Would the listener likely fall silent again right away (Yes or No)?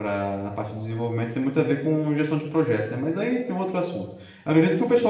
Yes